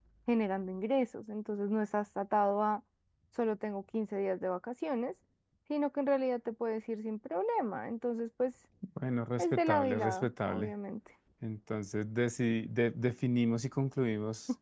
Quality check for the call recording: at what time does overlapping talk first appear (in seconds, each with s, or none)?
9.4 s